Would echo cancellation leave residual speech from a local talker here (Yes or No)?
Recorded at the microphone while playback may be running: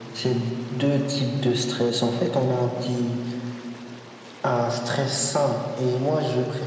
No